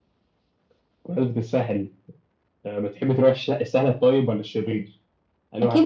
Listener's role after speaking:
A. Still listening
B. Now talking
B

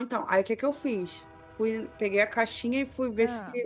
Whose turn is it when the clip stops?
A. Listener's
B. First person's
B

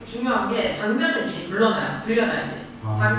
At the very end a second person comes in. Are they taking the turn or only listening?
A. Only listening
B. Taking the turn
A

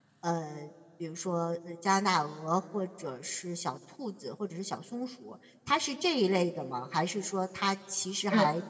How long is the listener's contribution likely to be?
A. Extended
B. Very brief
B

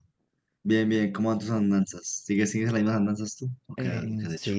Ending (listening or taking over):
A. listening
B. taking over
B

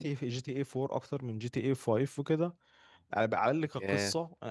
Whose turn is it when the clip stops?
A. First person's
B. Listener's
A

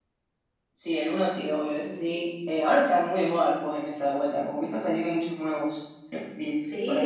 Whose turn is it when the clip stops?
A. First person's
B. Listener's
B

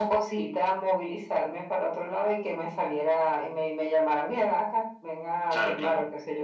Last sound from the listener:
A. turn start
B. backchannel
B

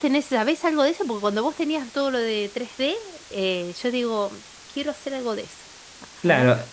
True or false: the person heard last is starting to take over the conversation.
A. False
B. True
B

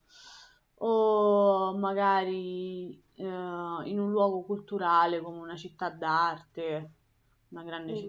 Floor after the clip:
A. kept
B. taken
B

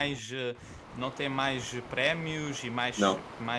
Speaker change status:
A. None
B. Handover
A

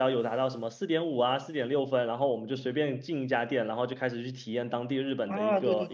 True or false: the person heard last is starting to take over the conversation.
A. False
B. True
B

